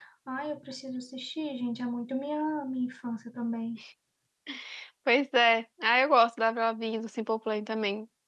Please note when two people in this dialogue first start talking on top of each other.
none

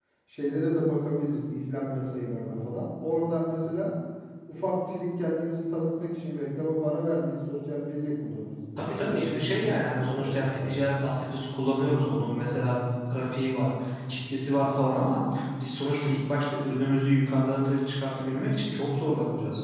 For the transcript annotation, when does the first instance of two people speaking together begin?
9 s

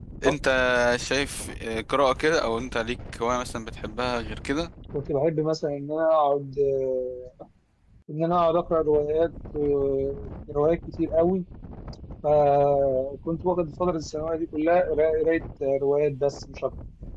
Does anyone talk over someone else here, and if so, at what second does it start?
none

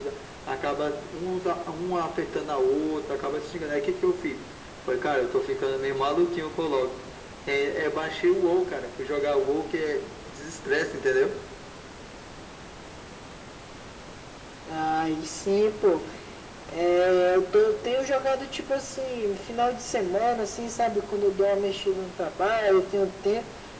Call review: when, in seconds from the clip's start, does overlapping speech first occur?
none

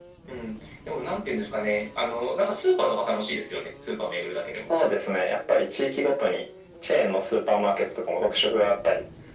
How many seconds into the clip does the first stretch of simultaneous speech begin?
none

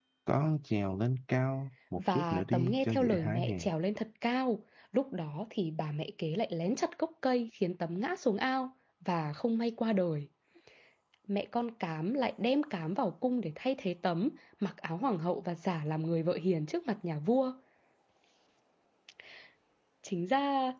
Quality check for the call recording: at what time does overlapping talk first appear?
2 s

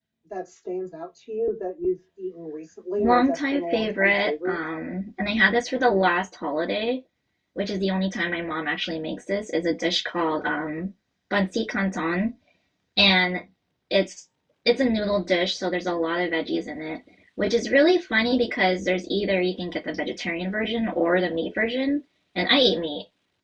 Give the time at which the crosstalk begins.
3 s

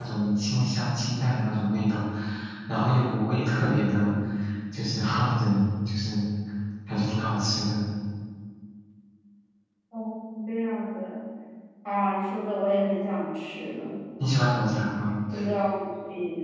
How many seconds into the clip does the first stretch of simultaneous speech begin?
none

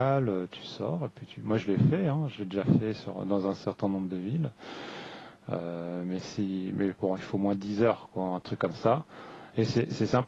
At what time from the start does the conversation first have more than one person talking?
none

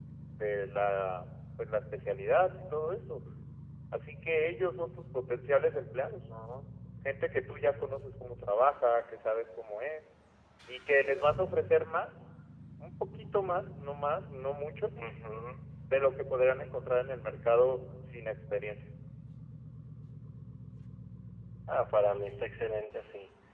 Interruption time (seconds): none

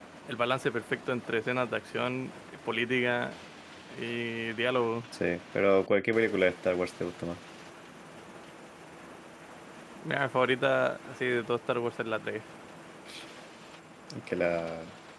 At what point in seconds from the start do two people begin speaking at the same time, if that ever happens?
none

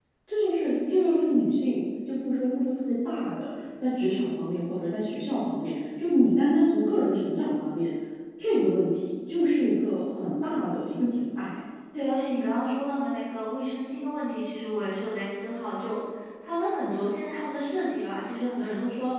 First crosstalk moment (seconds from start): none

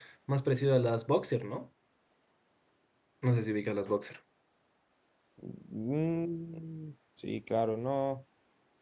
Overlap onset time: none

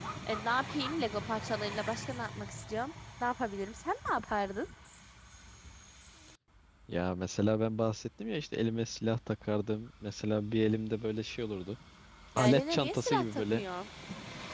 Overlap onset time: 12 s

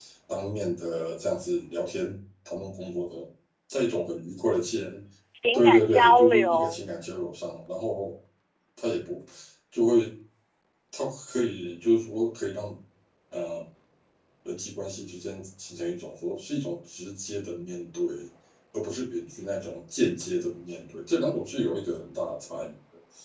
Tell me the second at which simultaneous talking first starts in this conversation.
6 s

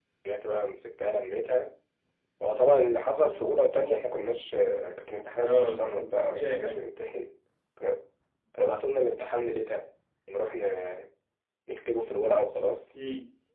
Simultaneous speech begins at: 5 s

